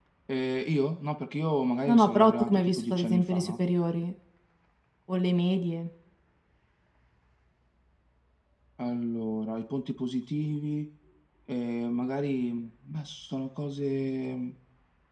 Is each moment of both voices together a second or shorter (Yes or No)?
No